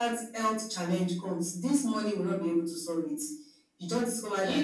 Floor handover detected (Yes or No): No